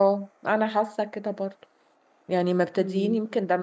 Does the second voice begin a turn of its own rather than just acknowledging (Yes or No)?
No